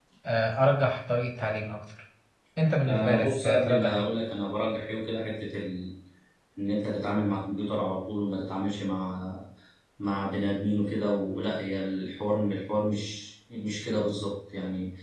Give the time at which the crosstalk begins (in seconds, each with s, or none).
2.8 s